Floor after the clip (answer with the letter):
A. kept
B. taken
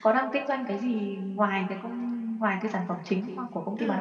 B